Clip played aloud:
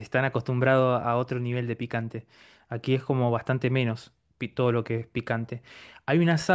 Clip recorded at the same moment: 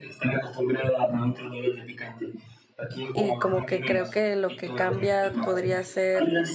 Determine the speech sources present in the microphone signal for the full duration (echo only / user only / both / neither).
both